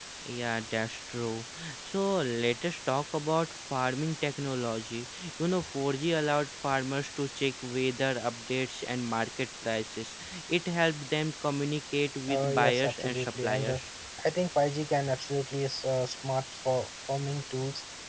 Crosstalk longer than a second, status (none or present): present